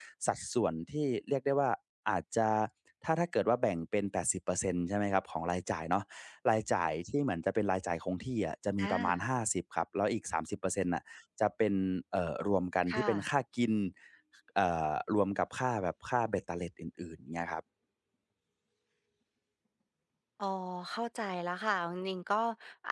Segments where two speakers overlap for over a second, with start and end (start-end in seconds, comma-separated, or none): none